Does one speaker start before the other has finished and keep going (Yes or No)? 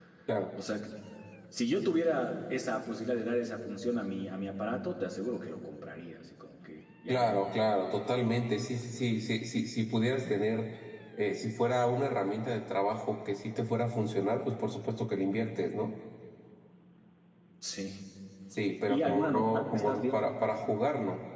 Yes